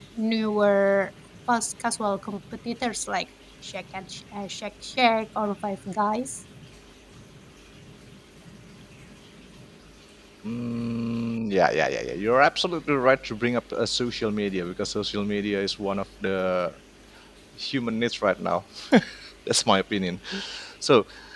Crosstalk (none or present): none